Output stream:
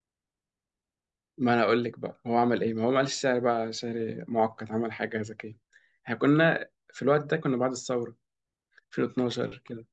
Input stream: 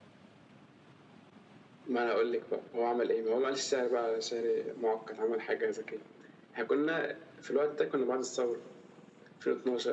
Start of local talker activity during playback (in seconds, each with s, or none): none